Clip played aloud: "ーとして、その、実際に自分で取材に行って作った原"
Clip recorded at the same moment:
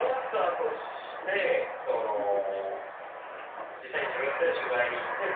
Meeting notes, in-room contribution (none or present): present